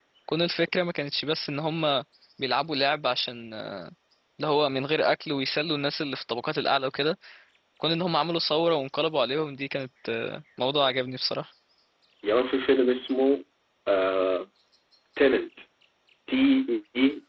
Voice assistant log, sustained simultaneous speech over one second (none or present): none